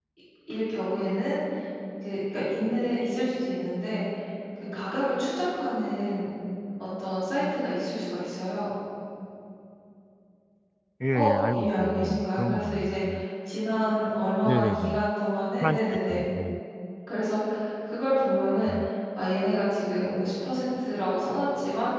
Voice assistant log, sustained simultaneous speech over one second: present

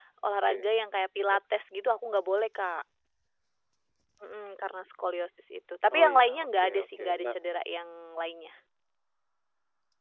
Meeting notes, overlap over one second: present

